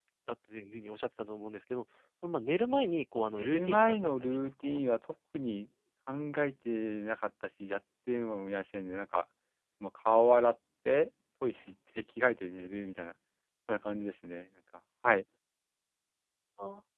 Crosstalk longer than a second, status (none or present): present